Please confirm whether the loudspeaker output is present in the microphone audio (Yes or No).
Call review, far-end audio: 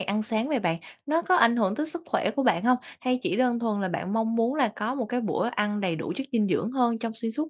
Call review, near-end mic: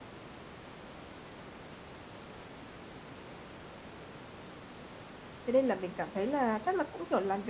No